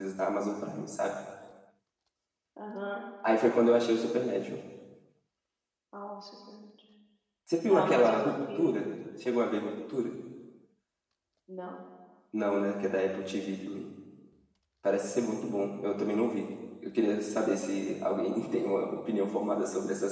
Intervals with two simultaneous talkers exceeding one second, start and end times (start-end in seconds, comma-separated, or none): 7.7-8.9